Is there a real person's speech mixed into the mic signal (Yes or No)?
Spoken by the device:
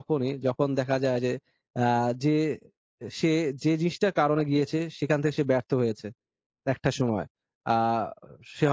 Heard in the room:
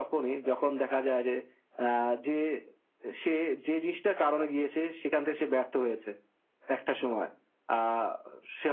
No